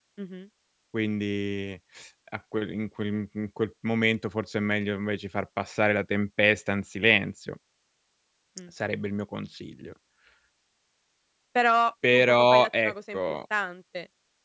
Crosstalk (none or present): present